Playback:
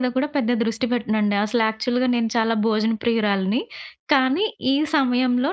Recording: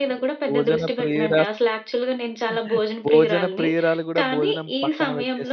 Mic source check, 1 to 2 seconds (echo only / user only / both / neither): both